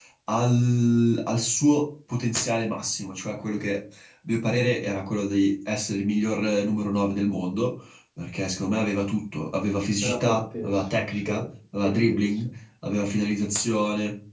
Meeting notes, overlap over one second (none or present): present